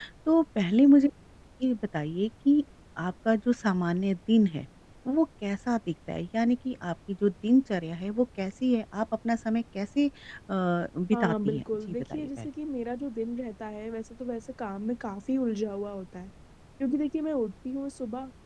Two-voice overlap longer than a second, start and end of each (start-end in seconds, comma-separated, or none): 11.1-12.5